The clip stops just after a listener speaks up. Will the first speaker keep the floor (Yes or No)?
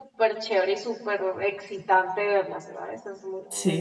No